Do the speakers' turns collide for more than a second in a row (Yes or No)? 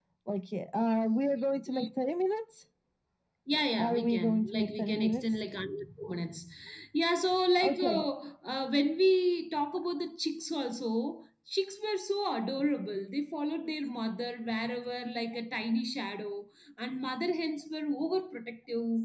Yes